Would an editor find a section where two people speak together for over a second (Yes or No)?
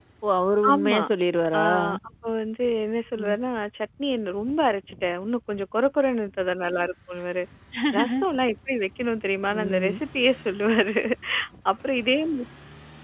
No